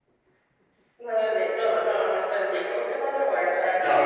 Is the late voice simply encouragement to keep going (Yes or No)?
No